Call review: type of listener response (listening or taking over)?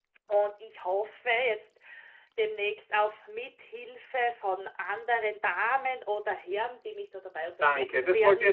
taking over